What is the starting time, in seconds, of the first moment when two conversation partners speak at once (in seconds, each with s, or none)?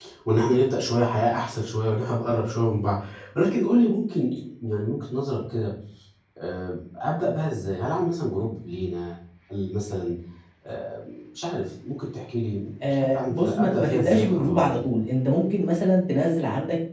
12.8 s